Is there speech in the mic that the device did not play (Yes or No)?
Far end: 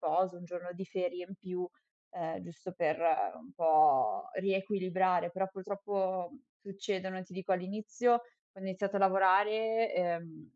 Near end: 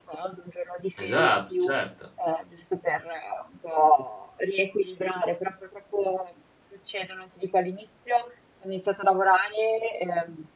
Yes